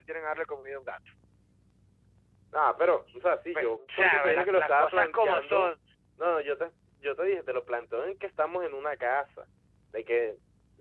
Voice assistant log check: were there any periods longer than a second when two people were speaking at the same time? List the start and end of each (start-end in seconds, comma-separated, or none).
3.5-5.7